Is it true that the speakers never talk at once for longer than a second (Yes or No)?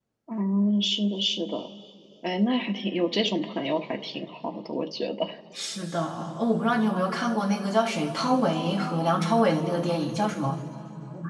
Yes